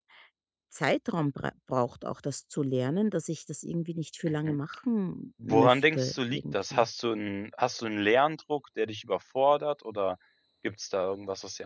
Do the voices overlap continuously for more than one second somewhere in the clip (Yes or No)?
Yes